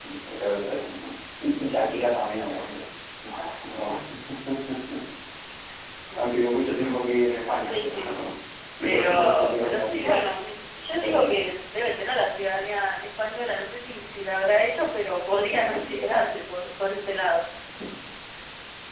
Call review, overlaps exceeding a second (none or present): present